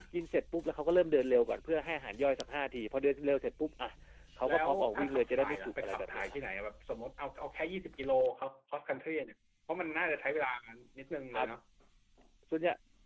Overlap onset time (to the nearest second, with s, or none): 4 s